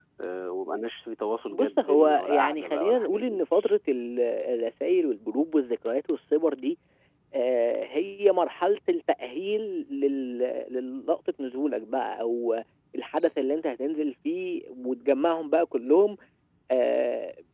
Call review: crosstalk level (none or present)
present